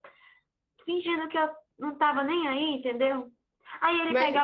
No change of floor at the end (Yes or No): Yes